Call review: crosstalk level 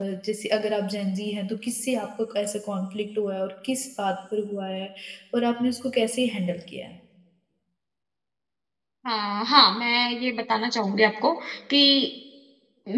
none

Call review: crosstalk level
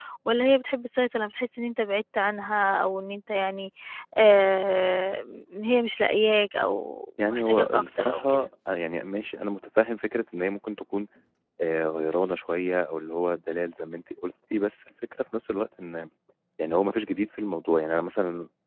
present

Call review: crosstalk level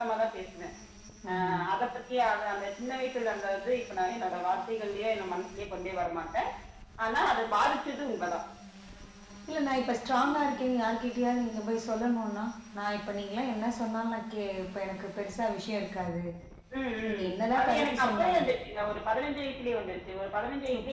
present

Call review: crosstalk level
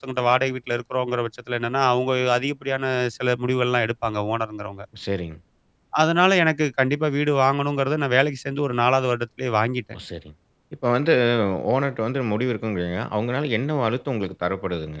none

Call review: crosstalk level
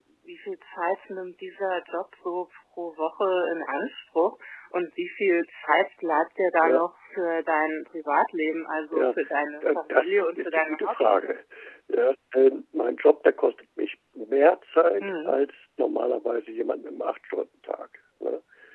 present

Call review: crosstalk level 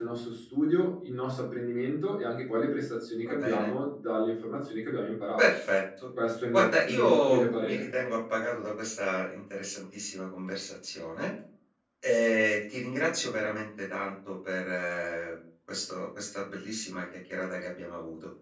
present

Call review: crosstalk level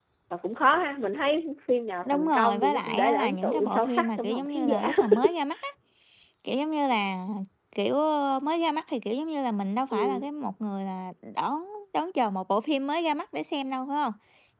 present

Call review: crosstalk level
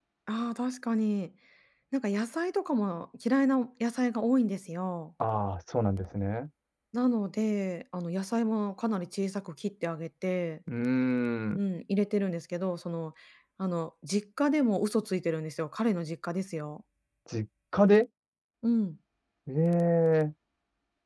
none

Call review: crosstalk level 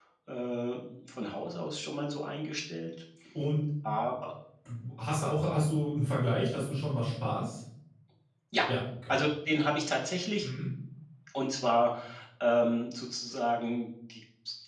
none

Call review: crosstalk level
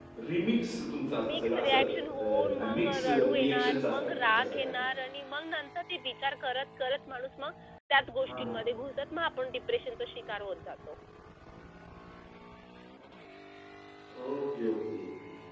present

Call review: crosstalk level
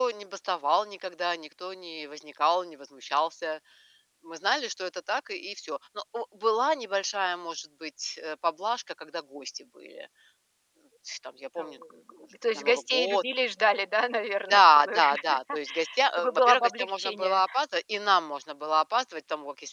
present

